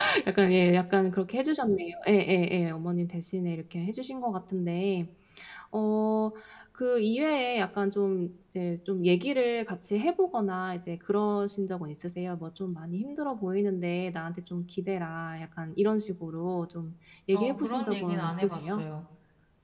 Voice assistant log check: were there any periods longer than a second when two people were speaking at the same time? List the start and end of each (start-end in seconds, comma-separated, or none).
17.3-18.8